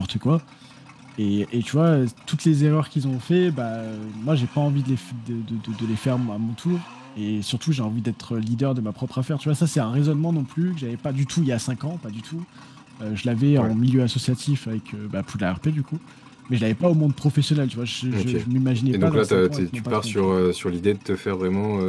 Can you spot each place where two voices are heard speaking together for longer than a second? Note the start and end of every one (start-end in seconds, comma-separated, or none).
18.9-20.3